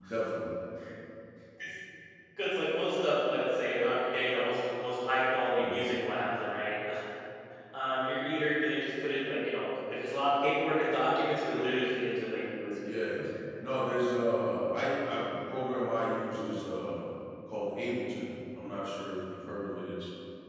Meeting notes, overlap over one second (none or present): none